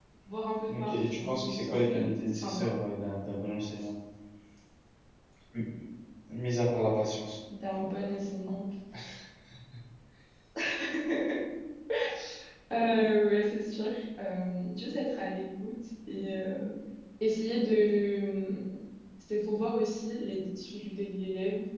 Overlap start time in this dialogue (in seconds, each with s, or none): 0.7 s